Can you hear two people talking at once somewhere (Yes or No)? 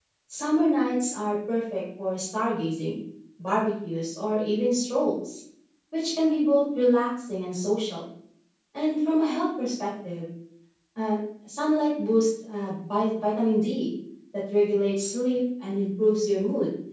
No